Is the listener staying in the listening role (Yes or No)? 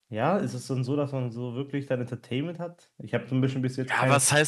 No